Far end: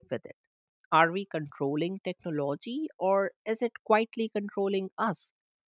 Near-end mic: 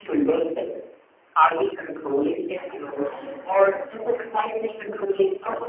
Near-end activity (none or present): present